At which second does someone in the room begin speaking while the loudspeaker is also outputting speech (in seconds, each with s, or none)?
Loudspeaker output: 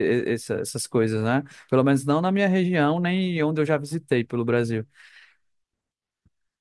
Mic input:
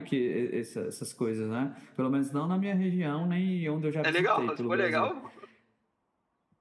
4.0 s